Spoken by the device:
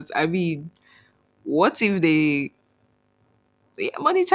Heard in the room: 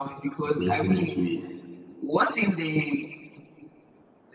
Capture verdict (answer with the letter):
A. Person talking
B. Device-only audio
A